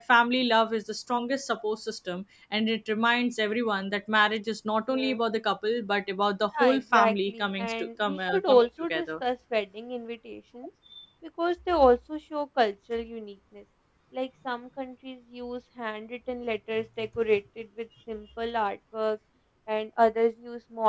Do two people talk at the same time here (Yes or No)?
Yes